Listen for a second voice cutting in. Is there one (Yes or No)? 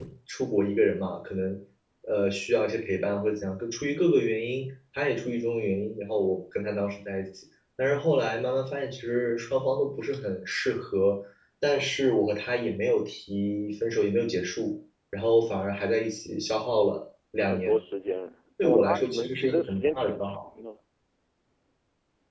Yes